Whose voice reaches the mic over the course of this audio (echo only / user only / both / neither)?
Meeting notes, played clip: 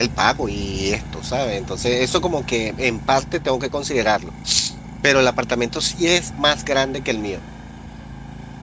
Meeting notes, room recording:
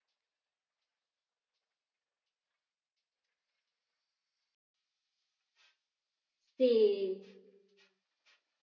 user only